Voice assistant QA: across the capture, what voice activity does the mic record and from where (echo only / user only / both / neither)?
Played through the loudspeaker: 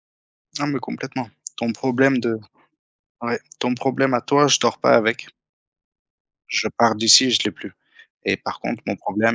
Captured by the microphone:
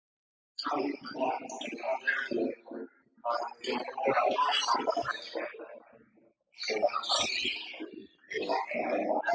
echo only